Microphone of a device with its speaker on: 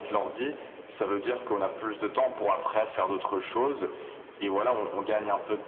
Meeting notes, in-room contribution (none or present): none